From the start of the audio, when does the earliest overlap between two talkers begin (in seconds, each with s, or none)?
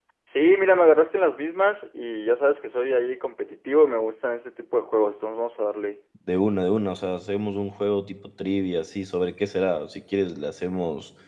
none